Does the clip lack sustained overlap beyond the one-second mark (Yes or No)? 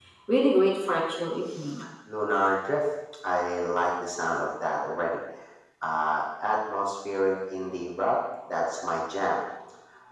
Yes